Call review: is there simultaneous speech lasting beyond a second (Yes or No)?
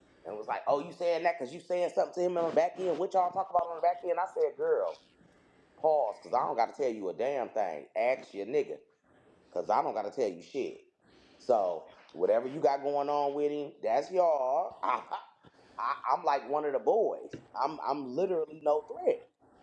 No